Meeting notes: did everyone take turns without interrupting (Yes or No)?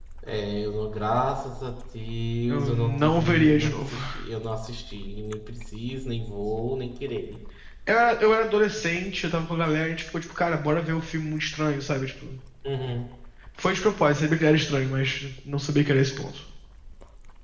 No